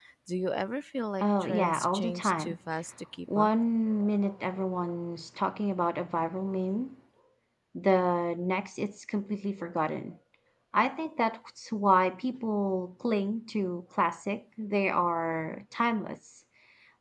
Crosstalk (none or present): present